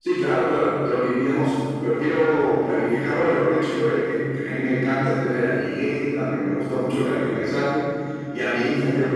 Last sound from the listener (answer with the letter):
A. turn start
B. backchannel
B